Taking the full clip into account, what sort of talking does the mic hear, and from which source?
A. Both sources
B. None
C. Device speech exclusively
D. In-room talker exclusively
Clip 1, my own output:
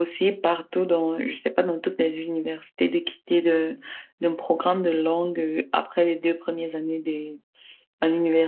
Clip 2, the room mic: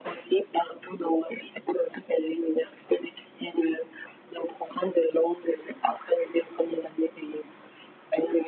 C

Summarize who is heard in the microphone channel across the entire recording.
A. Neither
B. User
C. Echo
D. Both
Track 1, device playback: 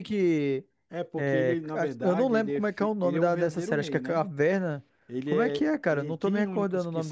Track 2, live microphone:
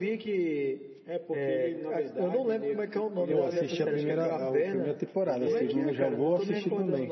D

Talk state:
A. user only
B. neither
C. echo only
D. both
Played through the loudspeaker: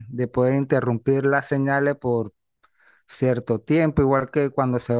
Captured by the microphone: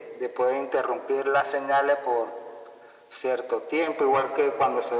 C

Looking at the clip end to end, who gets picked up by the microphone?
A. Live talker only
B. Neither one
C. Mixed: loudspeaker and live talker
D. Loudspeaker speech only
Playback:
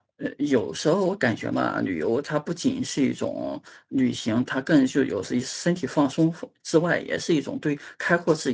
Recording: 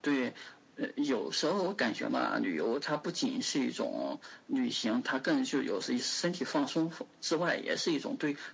D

